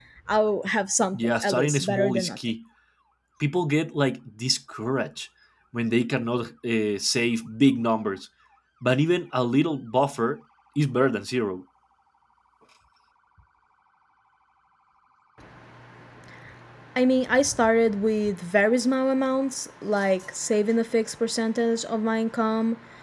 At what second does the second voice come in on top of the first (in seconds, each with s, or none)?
1.1 s